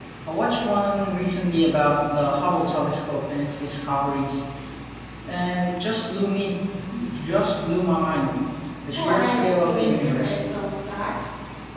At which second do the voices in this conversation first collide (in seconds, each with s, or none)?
9.0 s